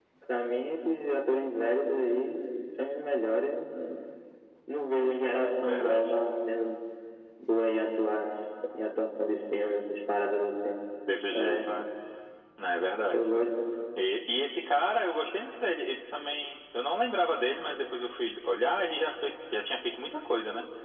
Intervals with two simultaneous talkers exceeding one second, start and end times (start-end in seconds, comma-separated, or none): none